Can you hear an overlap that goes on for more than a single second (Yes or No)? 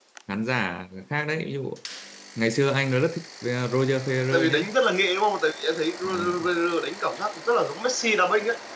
No